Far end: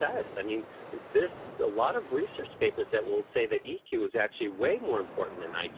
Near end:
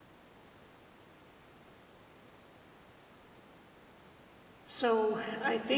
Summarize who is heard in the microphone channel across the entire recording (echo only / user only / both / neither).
user only